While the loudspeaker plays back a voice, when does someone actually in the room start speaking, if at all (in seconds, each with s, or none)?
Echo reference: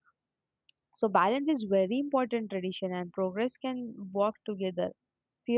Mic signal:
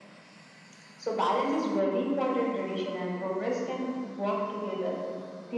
none